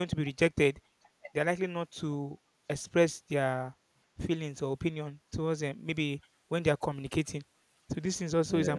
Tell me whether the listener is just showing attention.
Yes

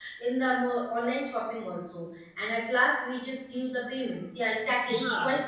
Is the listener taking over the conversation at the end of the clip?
Yes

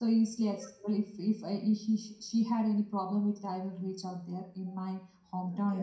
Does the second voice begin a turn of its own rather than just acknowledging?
No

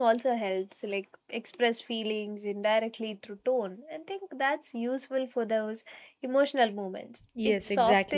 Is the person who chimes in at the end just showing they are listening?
No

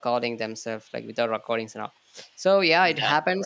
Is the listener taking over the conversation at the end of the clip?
No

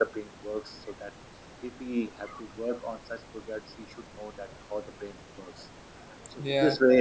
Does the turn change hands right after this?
No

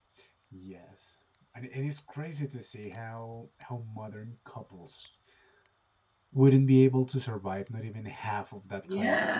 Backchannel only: No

